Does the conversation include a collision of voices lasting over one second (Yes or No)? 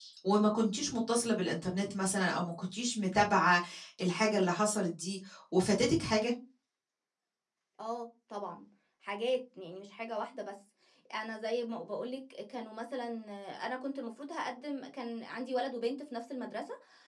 No